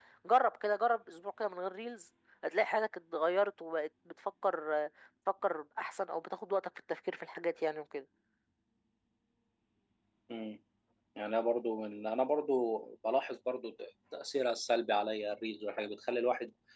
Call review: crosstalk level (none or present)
none